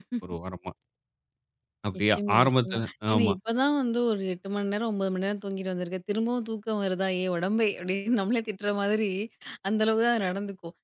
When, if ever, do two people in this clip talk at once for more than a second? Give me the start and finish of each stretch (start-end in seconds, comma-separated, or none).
2.1-3.3